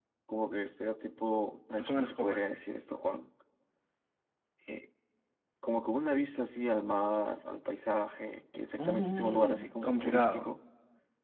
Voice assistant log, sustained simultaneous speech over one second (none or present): present